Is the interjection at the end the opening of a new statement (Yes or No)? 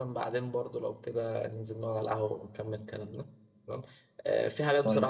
No